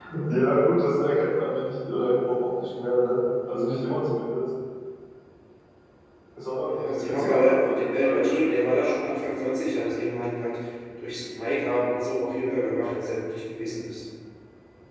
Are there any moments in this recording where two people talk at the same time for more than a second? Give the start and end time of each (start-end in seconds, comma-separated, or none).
6.7-8.4